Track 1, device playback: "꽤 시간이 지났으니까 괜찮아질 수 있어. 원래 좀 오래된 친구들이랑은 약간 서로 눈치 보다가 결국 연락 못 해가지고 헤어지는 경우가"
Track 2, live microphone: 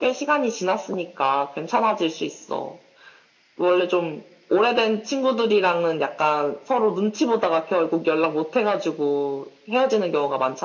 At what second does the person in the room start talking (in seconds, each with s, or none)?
none